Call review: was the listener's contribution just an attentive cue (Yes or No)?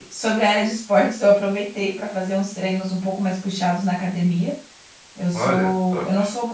Yes